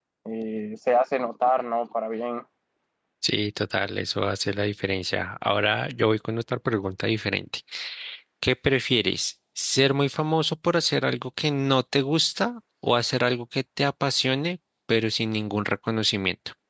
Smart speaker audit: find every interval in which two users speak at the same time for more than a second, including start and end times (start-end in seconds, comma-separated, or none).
none